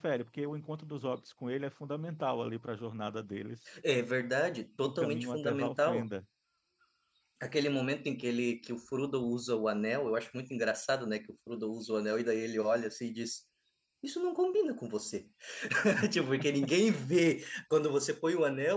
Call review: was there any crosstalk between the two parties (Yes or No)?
Yes